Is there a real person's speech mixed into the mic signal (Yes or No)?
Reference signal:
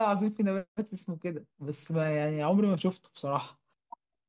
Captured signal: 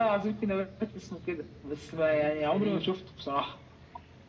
Yes